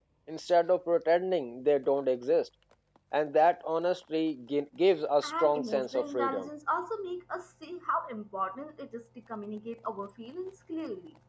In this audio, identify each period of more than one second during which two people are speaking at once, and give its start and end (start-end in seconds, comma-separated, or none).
5.2-6.5